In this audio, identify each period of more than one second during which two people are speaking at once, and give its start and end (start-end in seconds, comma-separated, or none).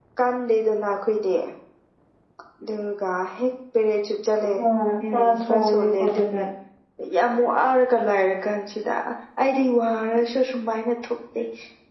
5.1-6.4